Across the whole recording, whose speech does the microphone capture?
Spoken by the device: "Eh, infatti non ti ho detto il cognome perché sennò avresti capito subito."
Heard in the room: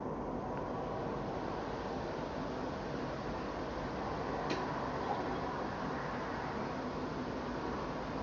neither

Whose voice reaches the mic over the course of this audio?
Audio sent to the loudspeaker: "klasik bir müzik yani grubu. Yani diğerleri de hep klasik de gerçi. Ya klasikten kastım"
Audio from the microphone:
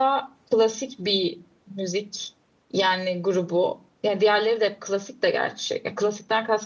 echo only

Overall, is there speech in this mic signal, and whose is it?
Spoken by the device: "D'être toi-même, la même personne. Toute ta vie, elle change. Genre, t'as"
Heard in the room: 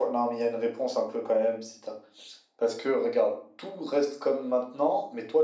user only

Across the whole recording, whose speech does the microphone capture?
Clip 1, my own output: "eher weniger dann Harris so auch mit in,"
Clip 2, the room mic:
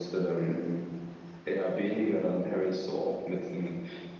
echo only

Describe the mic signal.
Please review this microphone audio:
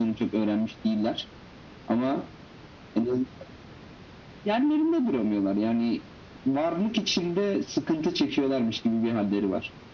echo only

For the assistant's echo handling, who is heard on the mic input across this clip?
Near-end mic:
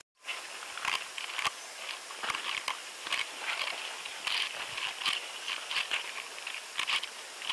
neither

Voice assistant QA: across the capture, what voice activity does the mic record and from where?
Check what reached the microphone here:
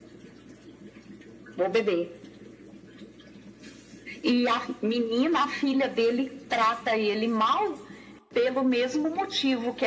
echo only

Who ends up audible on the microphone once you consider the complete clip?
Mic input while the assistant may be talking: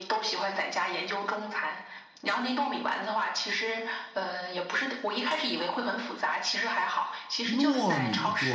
both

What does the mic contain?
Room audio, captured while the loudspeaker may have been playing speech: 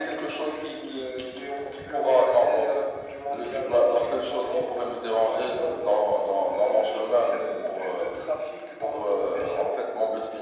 echo only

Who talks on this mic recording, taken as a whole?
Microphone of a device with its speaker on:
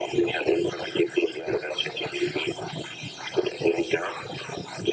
echo only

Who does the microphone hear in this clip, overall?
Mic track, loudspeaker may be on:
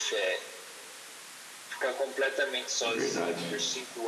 both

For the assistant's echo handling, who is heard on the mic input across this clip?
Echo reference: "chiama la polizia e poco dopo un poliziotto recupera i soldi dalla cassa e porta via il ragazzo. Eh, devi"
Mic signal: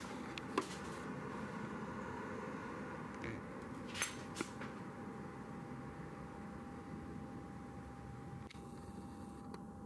neither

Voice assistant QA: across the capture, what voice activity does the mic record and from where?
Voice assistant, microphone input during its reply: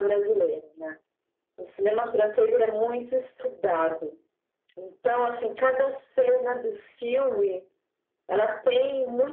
echo only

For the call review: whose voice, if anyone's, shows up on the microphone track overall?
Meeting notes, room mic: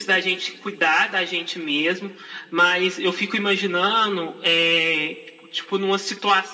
echo only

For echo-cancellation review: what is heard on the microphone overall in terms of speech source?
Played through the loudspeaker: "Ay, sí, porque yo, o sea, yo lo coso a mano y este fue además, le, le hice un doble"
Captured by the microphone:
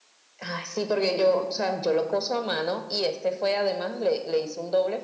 echo only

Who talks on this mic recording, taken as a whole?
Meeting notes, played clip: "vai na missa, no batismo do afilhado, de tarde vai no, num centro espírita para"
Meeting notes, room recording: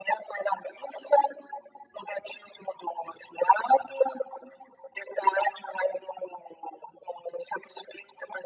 echo only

